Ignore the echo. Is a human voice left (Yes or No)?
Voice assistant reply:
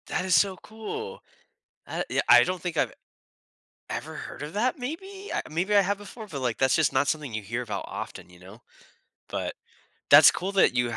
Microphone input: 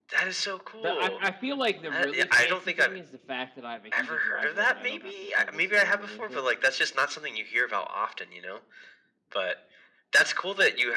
Yes